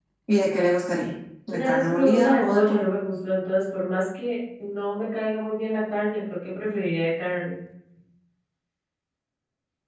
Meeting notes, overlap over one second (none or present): present